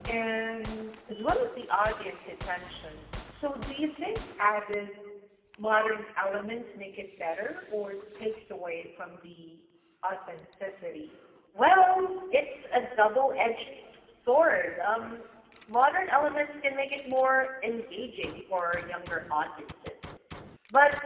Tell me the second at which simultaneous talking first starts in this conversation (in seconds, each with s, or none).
none